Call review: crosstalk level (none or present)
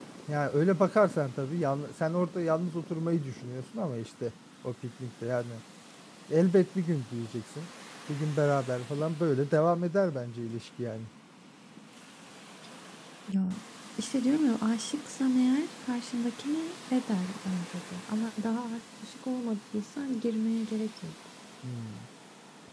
none